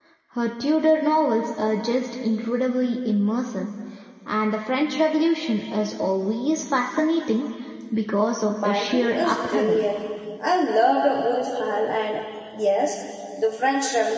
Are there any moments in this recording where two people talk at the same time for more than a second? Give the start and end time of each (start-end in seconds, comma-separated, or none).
8.5-9.8